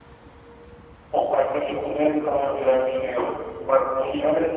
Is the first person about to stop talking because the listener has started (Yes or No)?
No